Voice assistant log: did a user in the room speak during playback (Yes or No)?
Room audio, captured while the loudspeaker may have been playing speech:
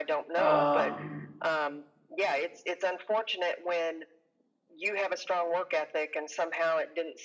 Yes